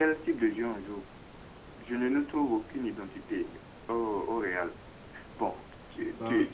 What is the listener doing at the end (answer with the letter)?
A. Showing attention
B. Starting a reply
A